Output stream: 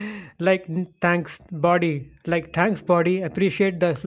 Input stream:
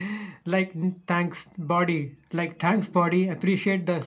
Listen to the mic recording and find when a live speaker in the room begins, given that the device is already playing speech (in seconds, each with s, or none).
none